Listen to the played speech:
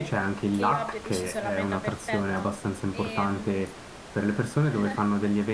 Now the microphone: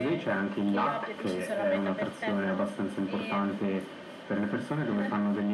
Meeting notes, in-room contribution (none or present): none